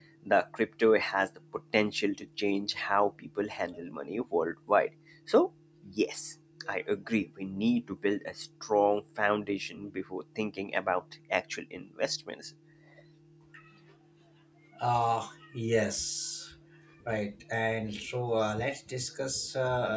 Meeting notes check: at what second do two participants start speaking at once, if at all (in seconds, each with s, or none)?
none